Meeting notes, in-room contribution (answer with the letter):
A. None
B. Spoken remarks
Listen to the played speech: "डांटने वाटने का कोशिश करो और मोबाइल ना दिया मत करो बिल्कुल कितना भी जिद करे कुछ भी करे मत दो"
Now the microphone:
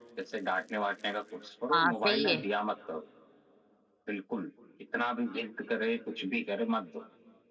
B